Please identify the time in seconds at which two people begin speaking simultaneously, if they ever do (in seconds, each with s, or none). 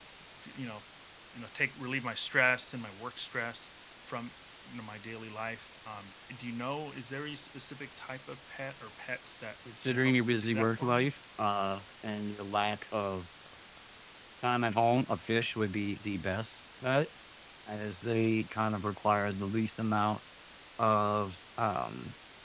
9.6 s